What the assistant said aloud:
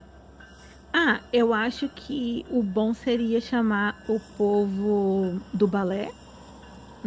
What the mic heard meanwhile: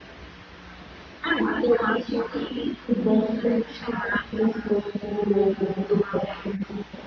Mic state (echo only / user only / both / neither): echo only